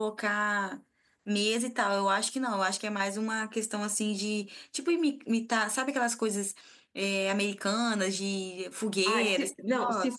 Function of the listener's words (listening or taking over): taking over